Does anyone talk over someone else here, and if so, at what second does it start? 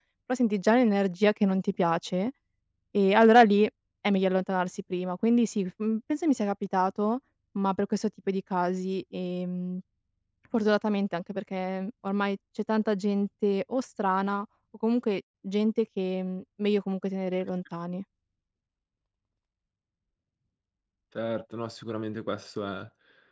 none

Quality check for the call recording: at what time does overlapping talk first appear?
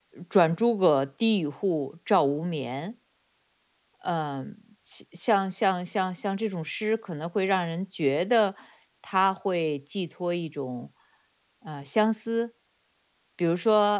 none

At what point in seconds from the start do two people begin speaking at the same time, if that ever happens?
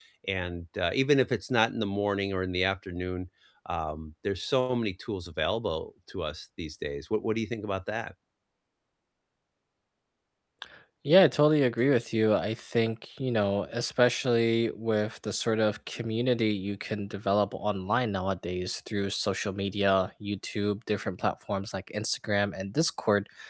none

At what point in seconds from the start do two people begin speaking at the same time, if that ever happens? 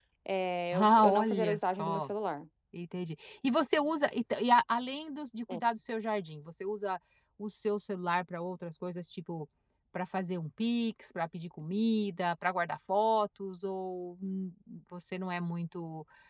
0.7 s

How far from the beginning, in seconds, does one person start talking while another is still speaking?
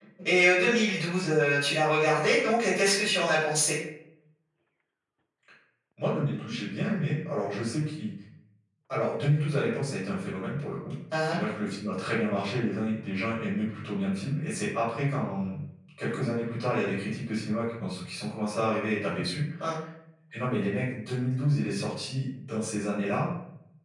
none

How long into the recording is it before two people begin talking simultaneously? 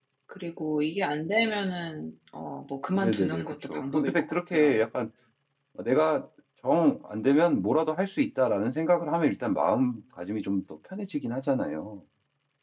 3.0 s

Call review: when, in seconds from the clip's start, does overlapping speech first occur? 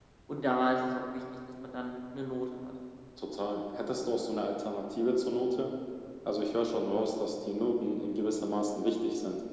none

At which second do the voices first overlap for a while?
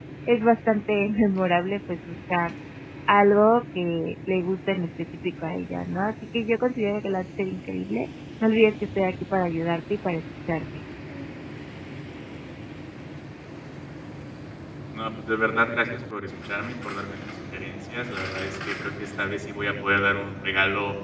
none

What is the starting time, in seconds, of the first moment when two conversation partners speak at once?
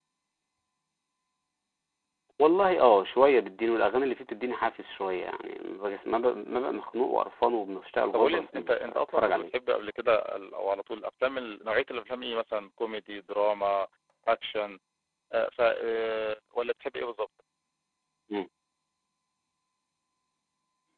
8.1 s

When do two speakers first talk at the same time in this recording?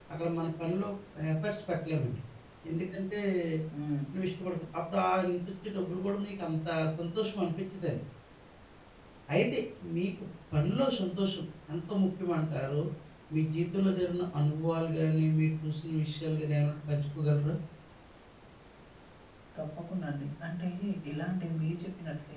none

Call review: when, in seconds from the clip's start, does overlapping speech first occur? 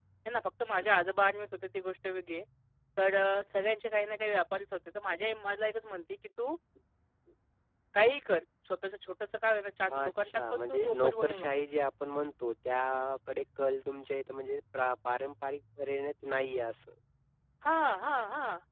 9.9 s

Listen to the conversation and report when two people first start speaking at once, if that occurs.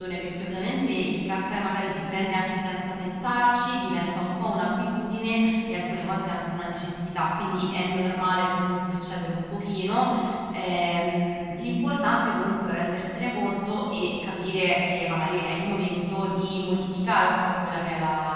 none

